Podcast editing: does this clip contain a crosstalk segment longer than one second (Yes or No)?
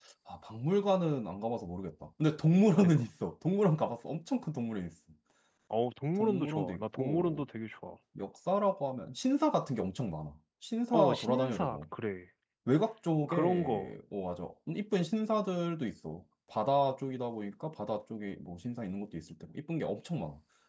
Yes